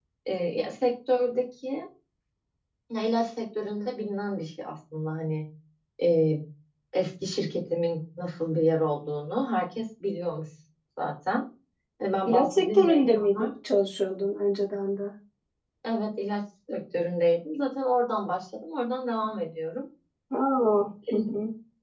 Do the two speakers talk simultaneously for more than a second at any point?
Yes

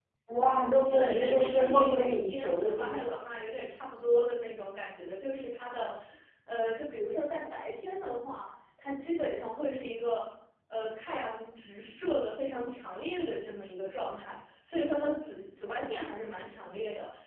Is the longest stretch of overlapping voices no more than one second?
No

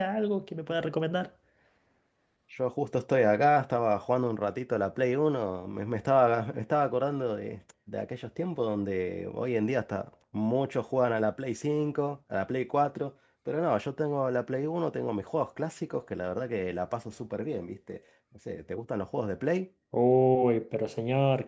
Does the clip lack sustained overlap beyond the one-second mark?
Yes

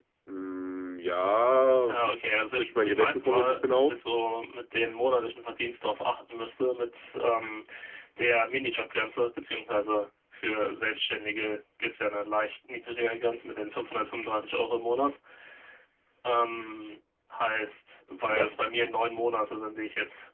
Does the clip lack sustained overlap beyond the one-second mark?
No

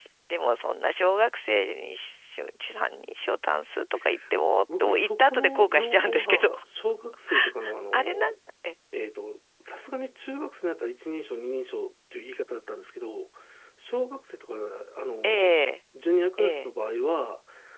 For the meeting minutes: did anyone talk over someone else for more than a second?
Yes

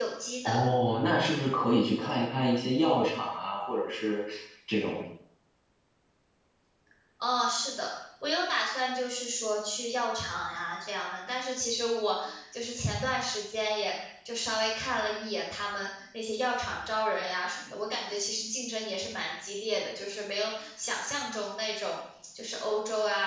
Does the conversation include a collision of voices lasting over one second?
No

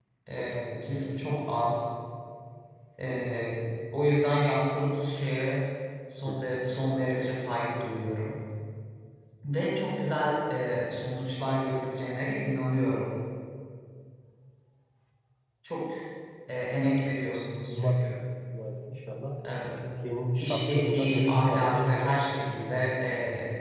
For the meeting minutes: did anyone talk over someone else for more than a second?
Yes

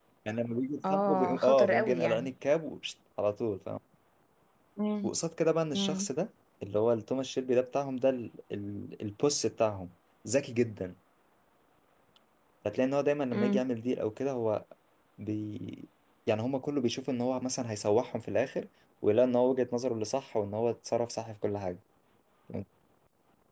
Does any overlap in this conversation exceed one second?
Yes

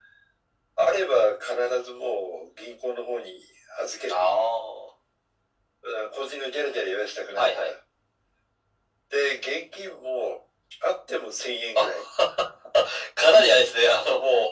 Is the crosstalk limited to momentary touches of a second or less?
Yes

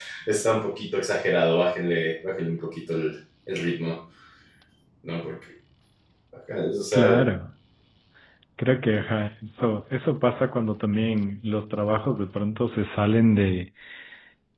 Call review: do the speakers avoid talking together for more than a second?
Yes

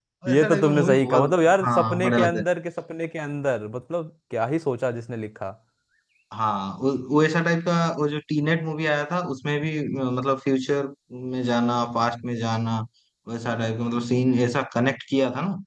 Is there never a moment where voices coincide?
No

